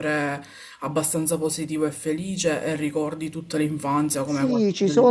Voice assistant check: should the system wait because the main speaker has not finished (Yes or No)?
No